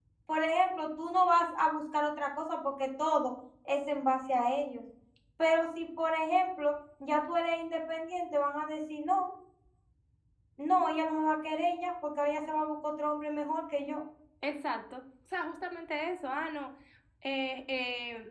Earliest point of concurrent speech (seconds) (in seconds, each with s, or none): none